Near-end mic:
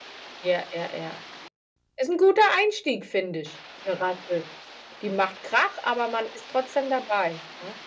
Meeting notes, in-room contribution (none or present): none